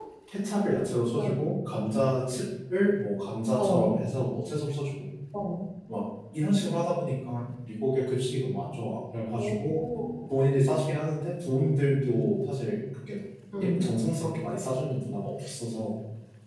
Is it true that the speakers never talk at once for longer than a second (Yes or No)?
Yes